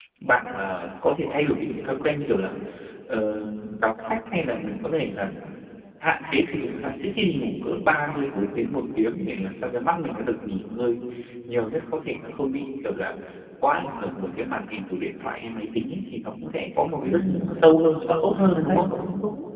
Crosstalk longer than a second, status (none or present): present